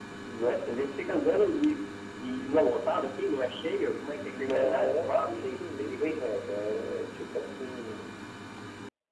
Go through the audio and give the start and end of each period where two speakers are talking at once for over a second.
4.4-6.1

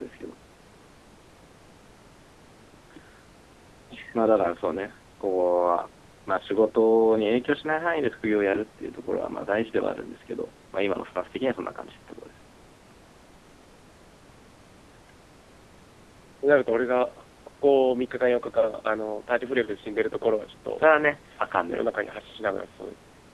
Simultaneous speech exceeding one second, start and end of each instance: none

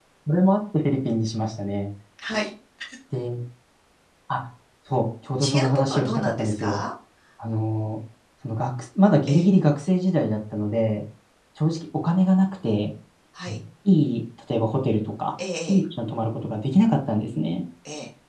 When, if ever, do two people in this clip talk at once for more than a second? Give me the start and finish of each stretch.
5.4-6.8

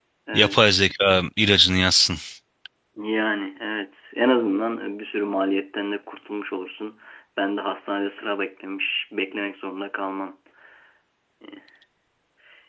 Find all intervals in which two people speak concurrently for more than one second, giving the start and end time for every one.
none

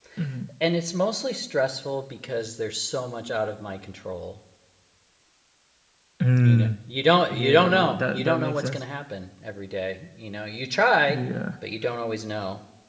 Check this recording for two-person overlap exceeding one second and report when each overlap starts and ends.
7.3-8.8

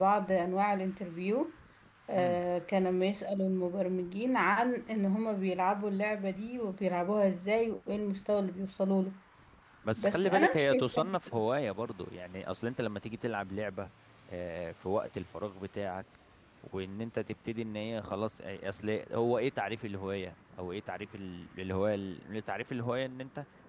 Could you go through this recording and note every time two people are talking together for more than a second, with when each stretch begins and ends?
9.9-11.2

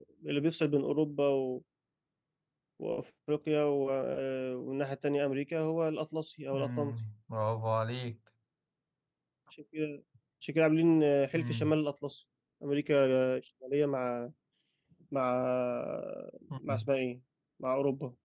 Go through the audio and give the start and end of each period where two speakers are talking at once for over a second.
none

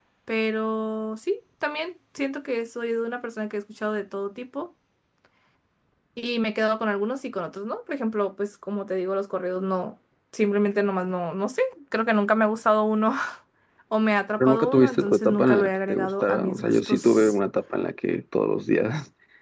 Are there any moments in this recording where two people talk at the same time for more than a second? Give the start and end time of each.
14.4-17.3

